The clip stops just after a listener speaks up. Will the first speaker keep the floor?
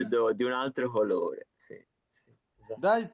No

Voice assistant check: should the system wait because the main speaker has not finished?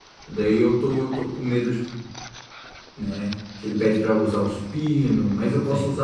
Yes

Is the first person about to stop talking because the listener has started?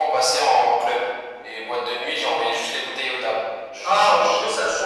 Yes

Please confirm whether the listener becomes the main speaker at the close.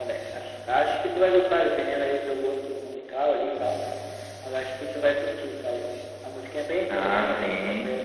Yes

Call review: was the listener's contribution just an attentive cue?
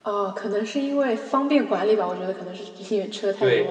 No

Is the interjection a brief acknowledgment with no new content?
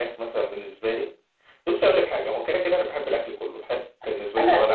No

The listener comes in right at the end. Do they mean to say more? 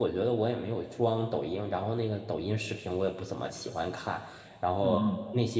No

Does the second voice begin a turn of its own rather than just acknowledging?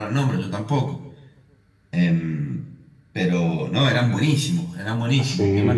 Yes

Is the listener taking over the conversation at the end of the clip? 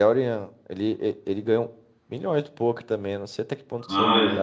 Yes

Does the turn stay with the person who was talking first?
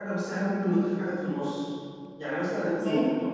Yes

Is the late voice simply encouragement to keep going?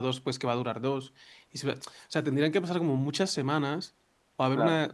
Yes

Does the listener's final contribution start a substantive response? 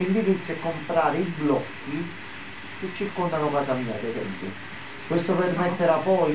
No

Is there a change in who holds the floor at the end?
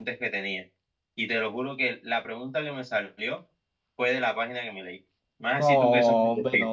Yes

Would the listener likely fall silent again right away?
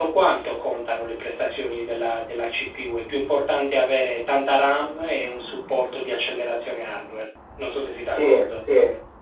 No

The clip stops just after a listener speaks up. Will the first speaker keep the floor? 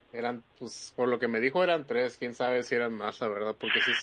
Yes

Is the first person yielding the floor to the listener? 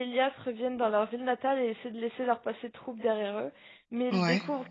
No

